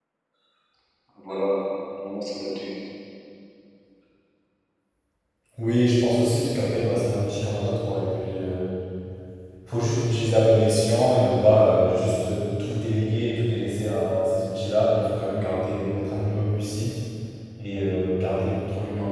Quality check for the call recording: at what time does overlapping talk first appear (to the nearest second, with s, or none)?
none